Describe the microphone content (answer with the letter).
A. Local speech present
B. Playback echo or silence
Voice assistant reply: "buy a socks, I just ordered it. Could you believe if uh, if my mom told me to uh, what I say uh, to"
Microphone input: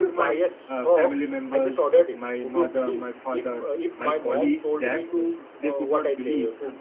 A